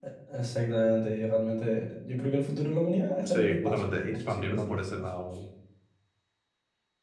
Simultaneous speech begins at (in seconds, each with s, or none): 3.2 s